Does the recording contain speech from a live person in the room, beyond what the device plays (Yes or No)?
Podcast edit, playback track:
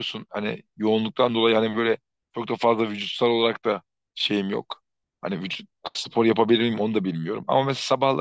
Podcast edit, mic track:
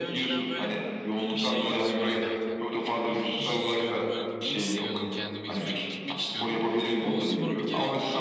Yes